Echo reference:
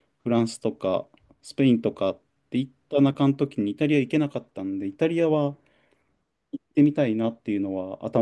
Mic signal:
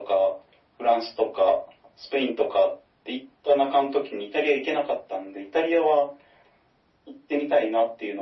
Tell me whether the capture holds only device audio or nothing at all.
Yes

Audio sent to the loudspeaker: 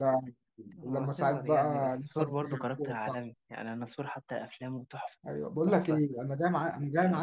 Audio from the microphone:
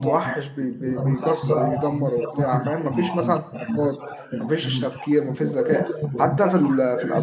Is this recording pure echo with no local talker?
No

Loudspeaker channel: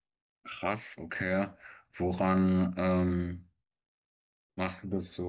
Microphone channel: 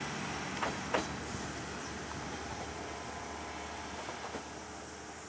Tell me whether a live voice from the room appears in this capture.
No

